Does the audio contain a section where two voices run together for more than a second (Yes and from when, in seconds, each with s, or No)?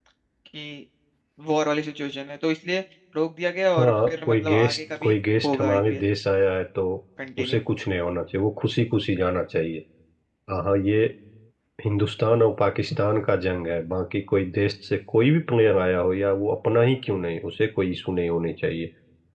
Yes, from 3.8 s